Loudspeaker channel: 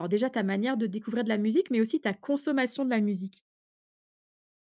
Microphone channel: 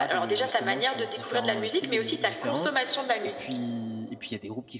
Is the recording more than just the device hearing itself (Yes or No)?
Yes